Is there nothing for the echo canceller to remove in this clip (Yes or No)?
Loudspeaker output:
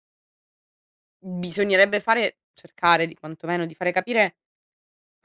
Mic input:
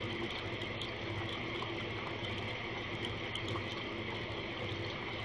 Yes